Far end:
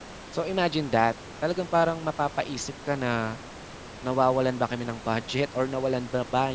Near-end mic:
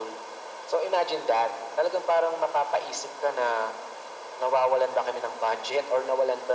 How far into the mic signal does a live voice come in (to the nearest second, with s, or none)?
none